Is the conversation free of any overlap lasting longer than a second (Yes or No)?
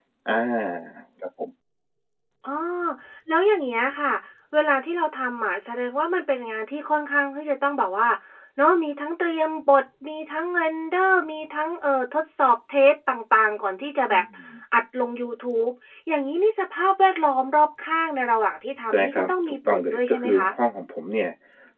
No